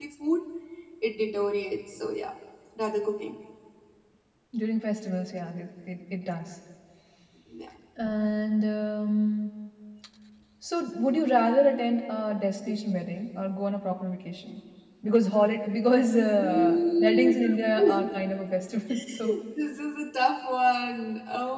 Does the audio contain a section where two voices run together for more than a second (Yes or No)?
Yes